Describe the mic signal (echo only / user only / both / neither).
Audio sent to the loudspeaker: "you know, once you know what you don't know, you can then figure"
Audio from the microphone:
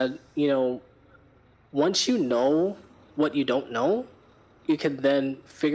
echo only